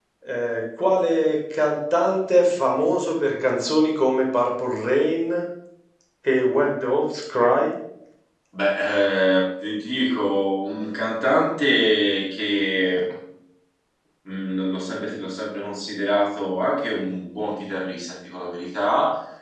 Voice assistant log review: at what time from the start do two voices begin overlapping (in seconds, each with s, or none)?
none